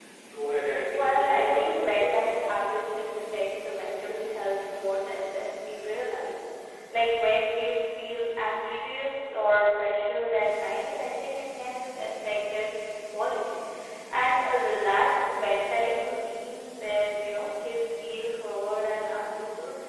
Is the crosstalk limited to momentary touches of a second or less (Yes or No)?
No